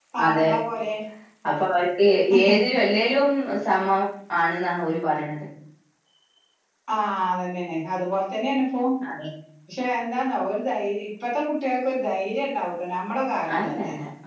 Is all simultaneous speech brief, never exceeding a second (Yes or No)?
Yes